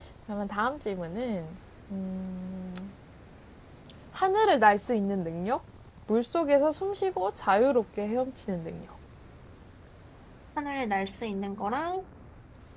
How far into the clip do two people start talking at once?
none

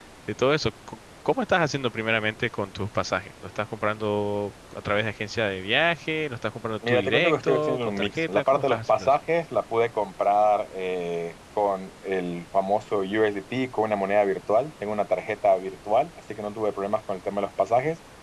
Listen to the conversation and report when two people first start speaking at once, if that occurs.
6.8 s

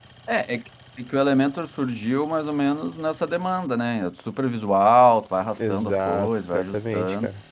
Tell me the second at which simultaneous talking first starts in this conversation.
5.6 s

